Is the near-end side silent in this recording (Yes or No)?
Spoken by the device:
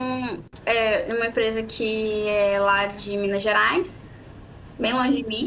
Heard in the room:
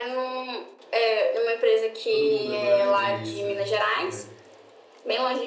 No